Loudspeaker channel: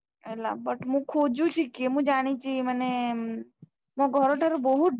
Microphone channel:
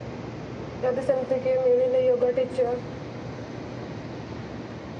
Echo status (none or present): none